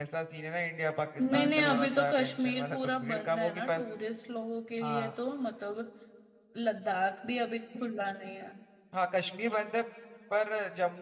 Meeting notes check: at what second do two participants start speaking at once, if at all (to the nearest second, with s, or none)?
1 s